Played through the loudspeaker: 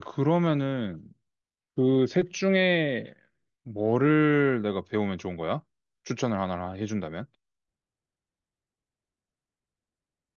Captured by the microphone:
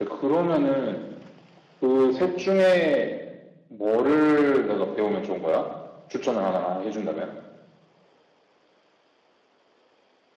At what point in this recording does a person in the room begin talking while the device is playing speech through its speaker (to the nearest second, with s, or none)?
none